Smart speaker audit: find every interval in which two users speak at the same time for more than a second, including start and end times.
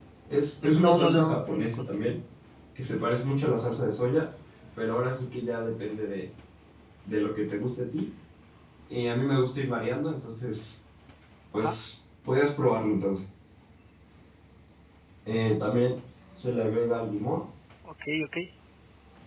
0.6-1.9

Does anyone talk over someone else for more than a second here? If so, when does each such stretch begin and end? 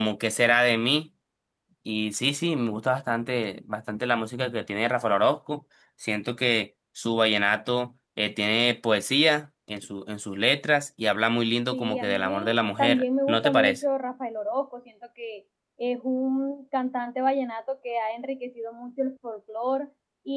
11.7-13.8

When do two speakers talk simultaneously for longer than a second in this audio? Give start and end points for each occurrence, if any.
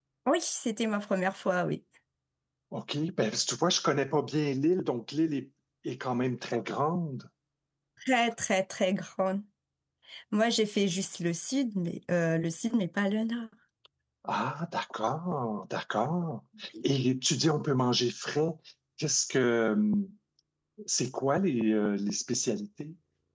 none

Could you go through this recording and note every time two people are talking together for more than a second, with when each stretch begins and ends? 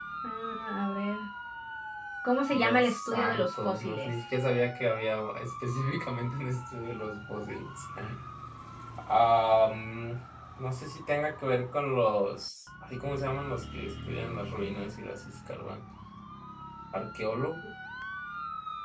2.5-4.1

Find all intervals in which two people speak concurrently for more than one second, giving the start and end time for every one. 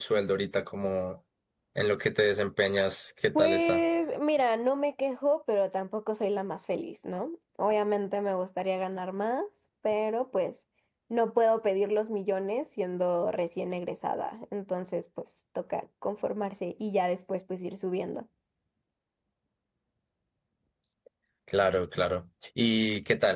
none

